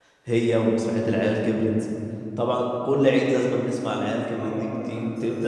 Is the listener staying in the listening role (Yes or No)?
No